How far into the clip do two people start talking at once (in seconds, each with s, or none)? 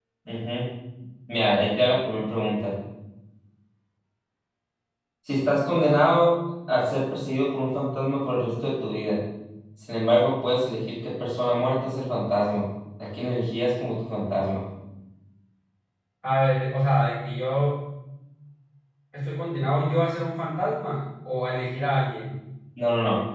none